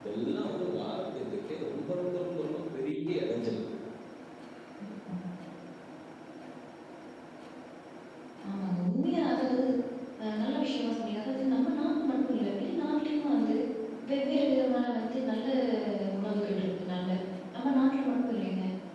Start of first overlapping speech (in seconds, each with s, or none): none